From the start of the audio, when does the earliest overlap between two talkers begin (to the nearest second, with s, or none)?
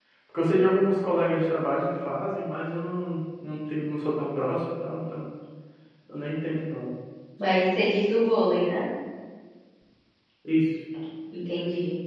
none